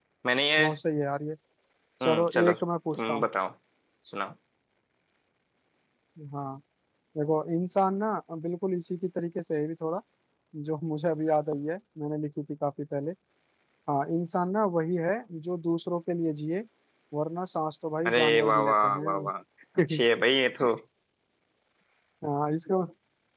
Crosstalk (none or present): present